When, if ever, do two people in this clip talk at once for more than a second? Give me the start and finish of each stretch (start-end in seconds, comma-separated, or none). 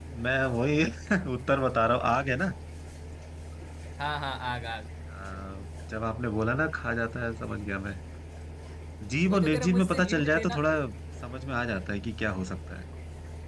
9.3-10.6